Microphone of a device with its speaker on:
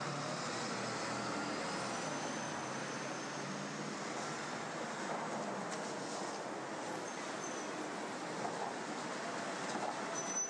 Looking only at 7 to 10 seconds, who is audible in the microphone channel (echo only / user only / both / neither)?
neither